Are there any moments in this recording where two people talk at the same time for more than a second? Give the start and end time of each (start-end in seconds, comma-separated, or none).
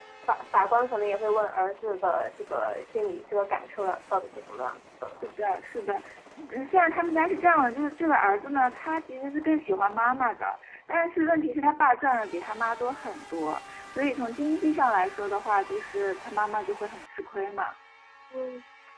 none